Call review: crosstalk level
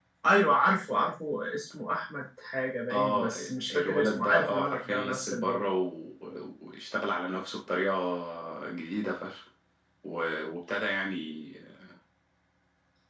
present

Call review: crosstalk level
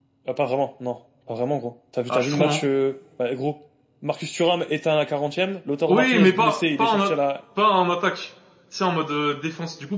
present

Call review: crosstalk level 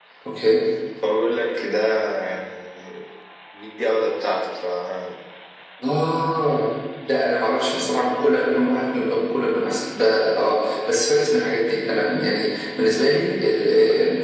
none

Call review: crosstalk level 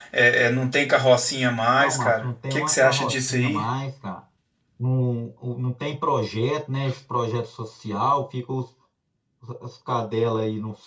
present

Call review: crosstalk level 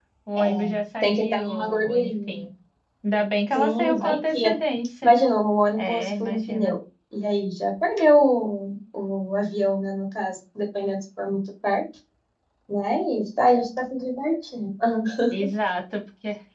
present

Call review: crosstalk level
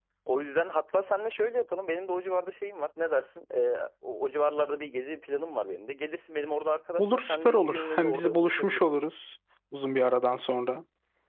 present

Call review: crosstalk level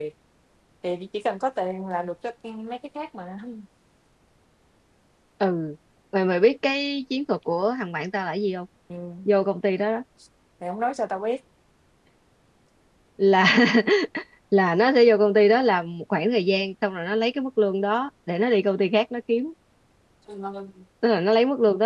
none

